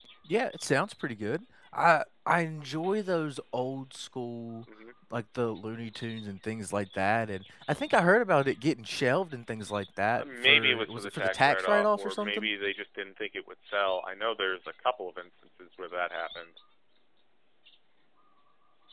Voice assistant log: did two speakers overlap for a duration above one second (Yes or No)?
Yes